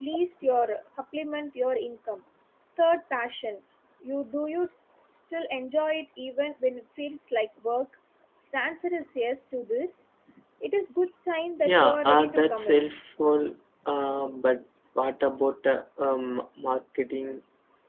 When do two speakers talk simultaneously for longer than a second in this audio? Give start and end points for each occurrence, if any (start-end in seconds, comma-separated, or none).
11.6-12.9